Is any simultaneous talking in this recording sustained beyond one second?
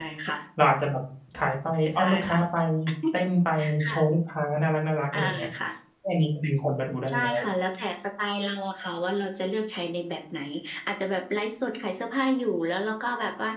No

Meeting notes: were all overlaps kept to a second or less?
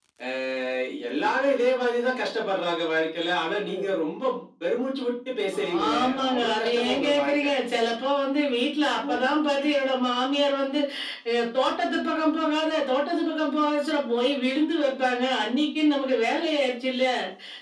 No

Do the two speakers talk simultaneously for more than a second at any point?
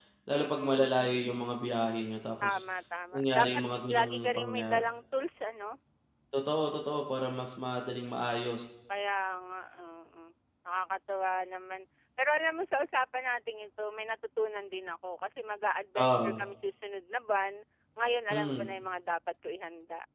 Yes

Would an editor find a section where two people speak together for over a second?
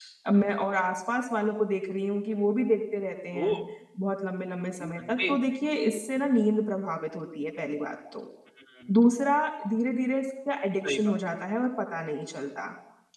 No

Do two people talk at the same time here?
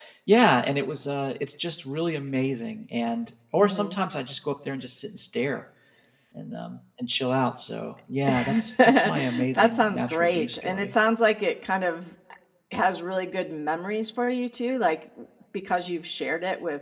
Yes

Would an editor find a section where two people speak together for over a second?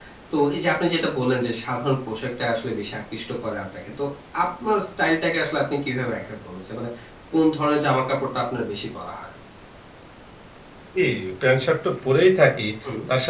No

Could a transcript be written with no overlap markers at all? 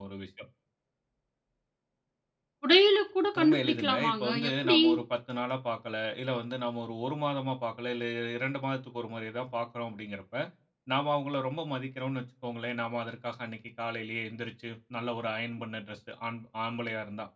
No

